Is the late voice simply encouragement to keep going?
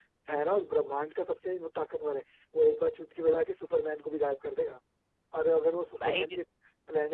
Yes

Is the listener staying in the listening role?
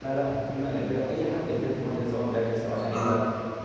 Yes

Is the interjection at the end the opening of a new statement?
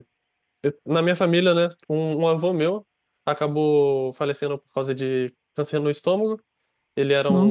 No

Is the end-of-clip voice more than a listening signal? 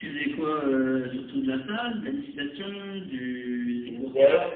Yes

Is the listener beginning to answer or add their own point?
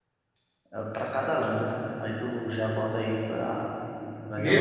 Yes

